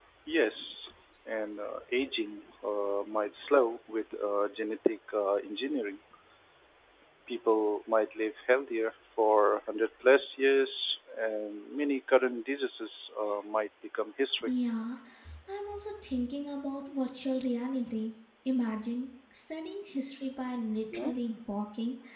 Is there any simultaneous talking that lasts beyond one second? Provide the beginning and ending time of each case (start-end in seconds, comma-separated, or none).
none